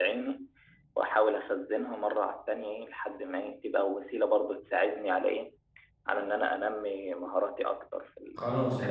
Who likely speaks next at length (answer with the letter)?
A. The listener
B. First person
A